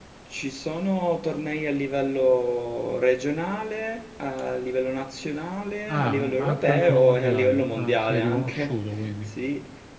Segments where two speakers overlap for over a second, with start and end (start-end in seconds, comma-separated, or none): 5.9-8.7